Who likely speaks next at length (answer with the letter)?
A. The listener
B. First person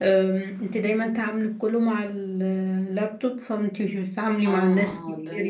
A